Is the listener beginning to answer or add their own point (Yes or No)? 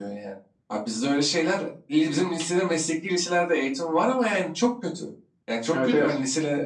No